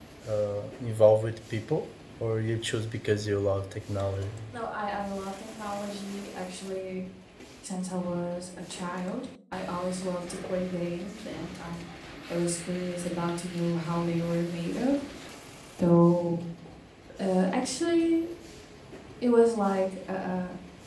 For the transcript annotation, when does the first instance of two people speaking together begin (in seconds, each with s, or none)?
none